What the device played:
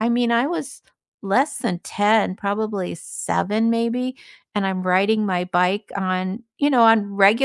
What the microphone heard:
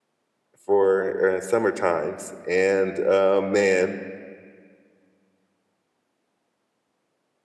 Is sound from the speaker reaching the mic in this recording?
No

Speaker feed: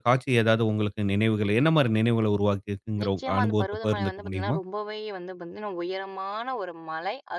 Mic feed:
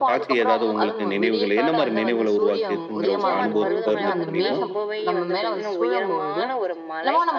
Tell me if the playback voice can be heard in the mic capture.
Yes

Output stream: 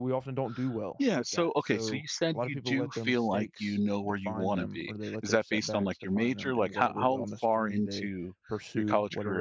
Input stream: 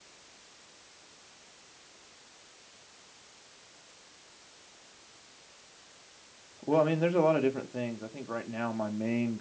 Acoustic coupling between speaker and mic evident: No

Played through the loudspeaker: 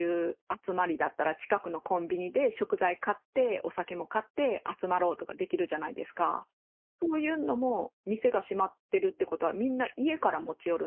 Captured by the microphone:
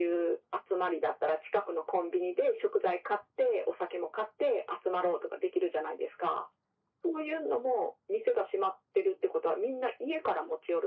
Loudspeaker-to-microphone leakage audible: Yes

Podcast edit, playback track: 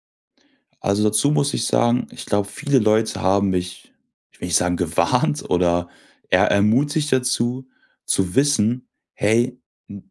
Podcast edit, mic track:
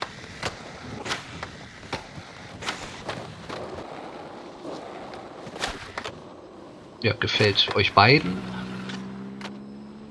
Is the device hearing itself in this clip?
No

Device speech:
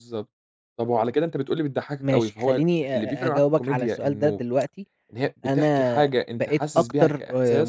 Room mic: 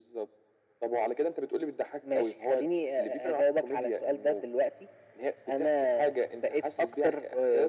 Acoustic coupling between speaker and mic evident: Yes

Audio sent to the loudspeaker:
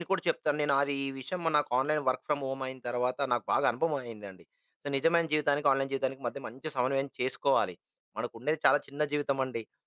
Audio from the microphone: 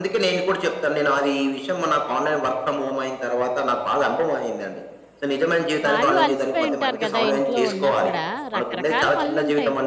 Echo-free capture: No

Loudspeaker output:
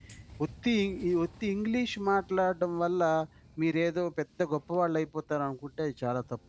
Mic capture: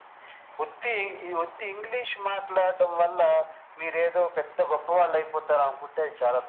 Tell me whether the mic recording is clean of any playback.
No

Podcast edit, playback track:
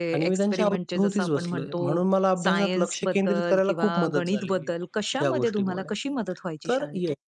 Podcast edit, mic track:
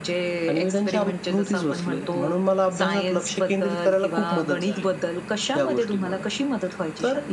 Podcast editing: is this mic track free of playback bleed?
No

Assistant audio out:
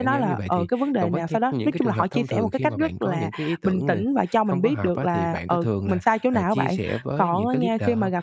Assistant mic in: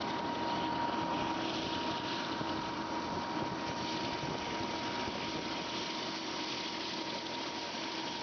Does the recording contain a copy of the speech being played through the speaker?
No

